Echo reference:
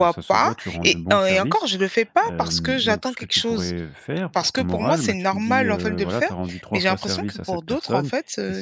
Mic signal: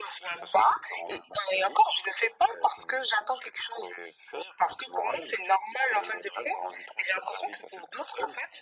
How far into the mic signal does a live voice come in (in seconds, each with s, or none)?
none